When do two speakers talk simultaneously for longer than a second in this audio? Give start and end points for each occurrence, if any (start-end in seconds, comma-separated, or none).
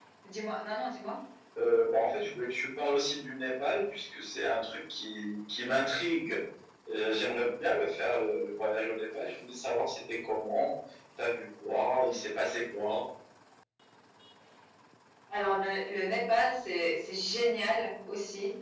none